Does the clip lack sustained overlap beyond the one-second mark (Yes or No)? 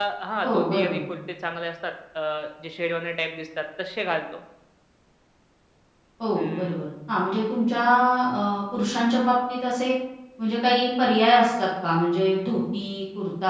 Yes